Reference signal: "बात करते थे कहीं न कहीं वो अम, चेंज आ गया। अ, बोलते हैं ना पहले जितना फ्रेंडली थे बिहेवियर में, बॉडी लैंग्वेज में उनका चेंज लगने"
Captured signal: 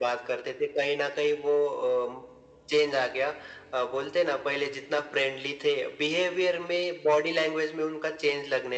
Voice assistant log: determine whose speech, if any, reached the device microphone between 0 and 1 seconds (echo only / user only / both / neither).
echo only